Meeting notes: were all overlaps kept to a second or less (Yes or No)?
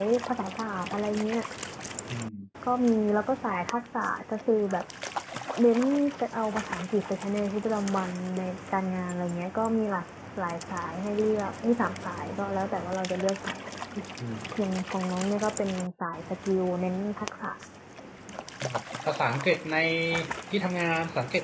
Yes